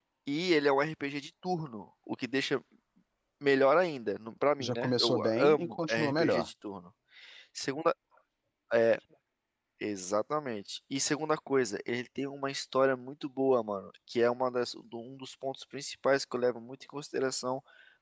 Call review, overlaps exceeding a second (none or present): present